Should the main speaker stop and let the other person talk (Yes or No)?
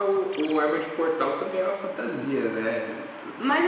Yes